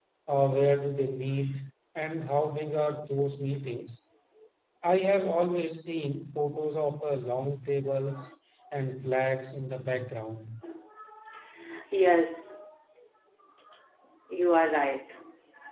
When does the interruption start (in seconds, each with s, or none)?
none